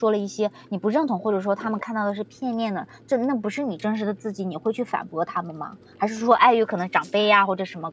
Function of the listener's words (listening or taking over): listening